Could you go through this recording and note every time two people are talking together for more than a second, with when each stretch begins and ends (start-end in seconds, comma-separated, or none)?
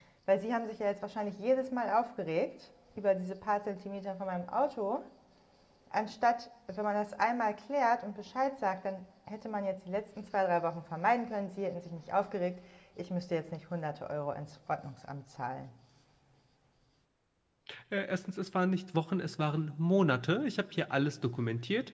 none